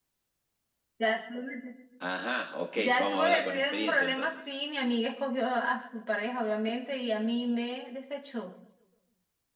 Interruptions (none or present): present